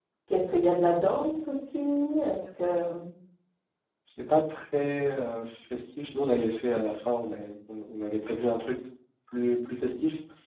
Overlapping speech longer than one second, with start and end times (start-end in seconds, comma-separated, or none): none